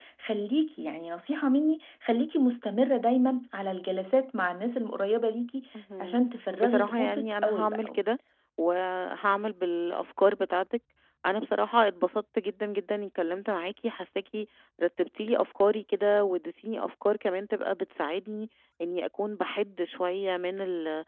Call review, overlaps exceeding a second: present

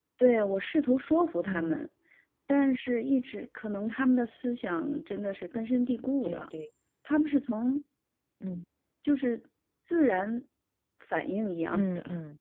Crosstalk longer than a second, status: none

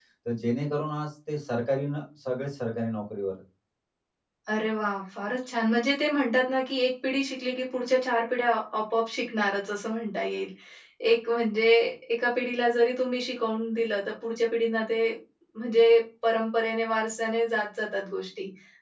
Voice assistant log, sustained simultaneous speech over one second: none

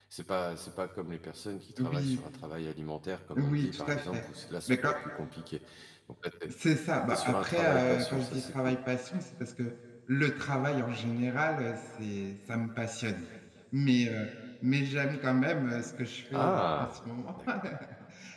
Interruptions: present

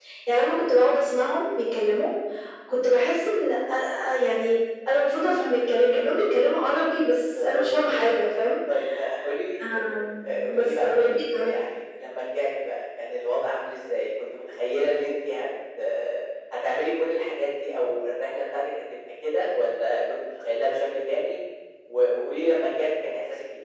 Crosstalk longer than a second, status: present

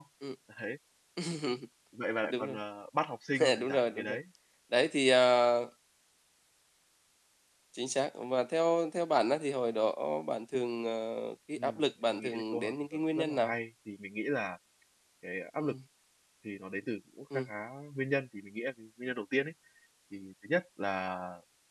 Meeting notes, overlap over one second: present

